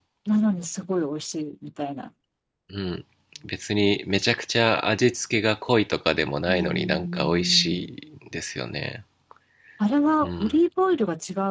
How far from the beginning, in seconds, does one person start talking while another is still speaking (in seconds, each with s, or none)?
6.5 s